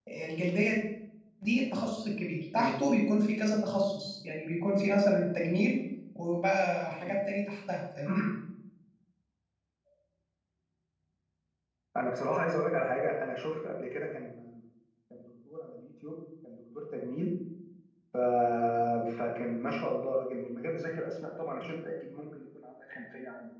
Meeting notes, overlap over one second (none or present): none